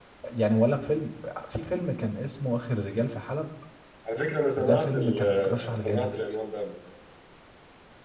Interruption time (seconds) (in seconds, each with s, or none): 4.6 s